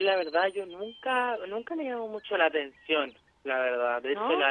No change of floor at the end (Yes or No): Yes